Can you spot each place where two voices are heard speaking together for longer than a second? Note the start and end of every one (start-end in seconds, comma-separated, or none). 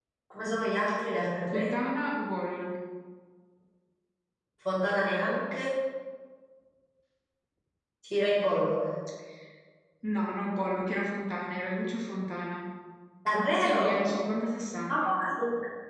none